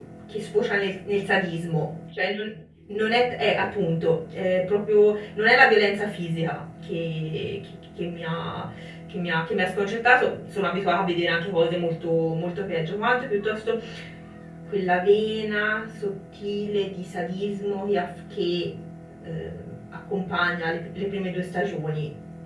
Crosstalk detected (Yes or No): No